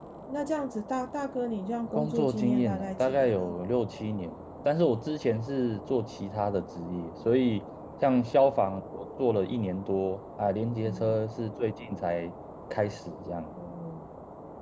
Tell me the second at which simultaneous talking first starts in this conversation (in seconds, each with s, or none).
1.9 s